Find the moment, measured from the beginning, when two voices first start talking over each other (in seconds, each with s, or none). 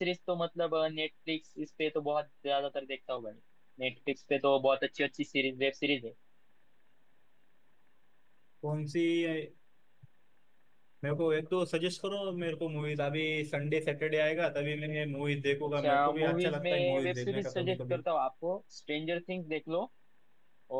15.8 s